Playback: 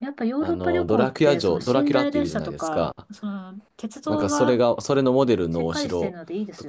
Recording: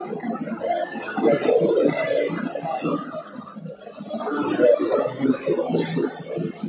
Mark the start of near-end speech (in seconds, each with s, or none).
none